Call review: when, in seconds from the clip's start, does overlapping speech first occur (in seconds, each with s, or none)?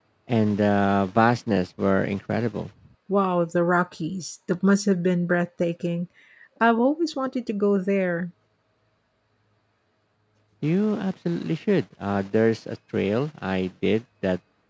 none